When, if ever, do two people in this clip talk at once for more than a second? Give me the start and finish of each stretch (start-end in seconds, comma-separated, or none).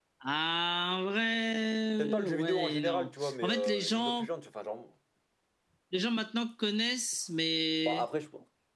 2.0-4.3